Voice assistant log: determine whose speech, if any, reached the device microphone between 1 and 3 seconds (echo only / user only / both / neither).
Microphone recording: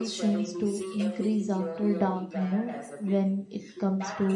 both